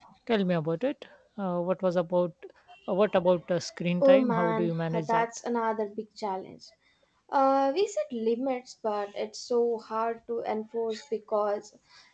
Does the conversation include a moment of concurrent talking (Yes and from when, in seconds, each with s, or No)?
Yes, from 4.0 s